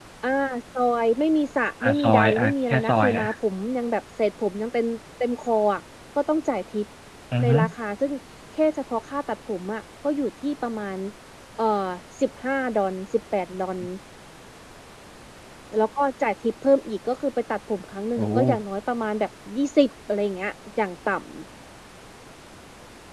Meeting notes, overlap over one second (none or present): present